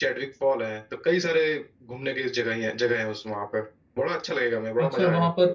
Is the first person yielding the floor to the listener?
Yes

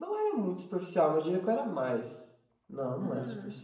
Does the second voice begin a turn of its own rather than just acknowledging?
No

